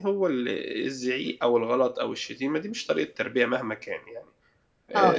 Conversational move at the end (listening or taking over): taking over